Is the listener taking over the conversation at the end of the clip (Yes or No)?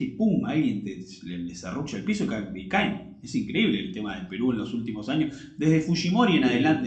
No